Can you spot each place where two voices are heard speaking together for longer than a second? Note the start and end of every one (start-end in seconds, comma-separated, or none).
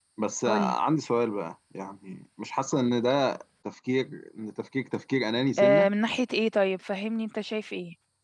none